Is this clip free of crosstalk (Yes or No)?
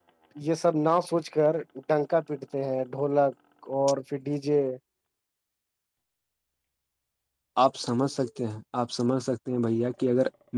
Yes